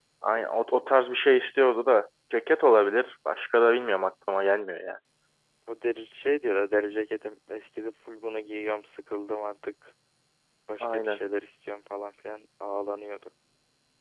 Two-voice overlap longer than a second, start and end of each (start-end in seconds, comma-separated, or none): none